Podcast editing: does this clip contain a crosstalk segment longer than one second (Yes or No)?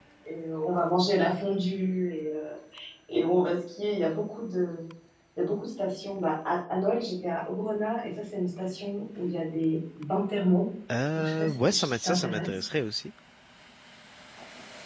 Yes